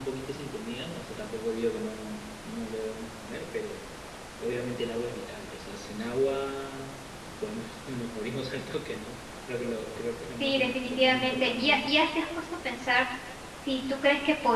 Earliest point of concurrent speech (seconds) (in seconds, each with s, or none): 10.4 s